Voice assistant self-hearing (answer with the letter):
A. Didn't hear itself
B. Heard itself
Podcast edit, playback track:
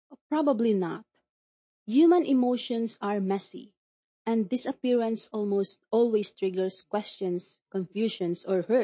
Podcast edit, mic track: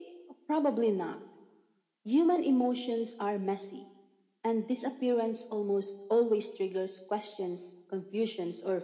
B